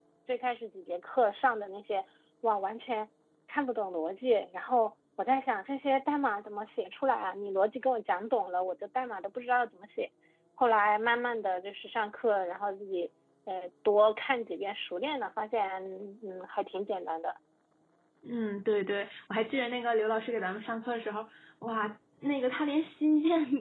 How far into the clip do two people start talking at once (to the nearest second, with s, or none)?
none